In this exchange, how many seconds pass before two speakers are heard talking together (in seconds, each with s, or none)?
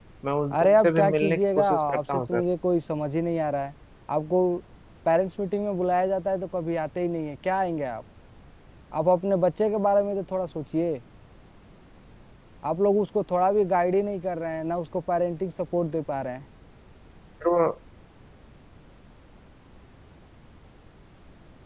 0.5 s